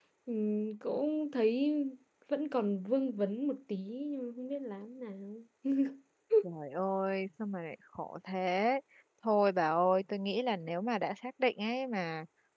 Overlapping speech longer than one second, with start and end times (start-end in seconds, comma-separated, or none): none